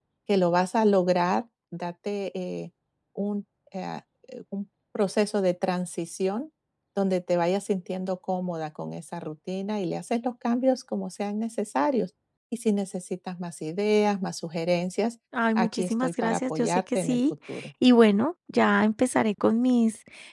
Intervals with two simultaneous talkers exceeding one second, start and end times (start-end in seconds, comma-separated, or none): 15.6-17.2